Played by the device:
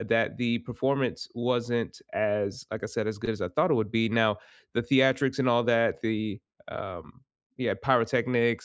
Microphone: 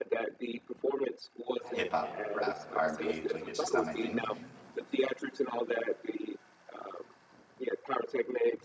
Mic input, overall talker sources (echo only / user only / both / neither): both